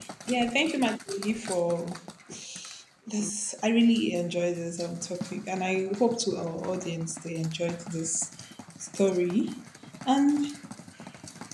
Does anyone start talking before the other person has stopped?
No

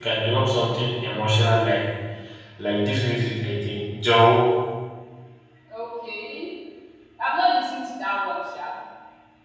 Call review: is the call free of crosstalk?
Yes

